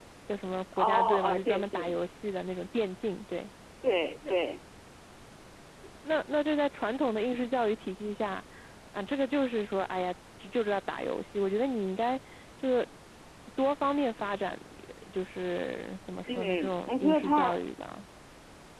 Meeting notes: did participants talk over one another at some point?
Yes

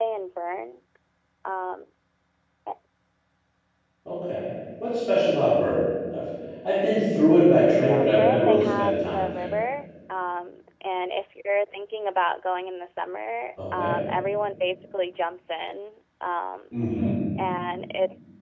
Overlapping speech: Yes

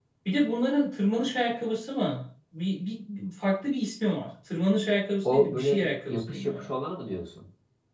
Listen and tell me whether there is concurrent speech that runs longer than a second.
Yes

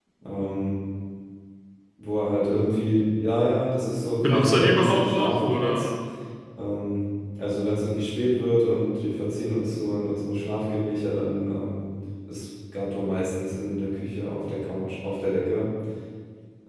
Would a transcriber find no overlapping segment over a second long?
No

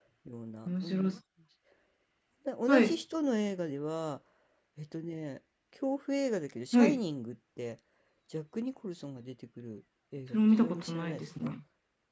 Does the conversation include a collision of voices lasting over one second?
Yes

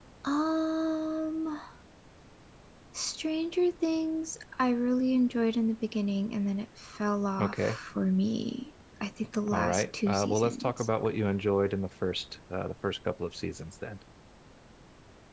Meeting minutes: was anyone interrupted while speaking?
Yes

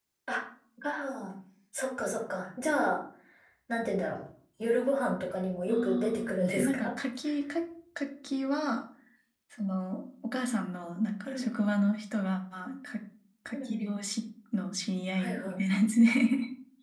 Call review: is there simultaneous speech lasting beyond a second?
Yes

